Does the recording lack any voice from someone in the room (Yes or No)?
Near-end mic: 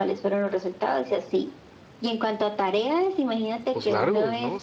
No